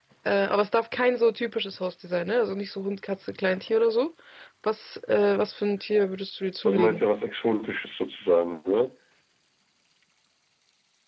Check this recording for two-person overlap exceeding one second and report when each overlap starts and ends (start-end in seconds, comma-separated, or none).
none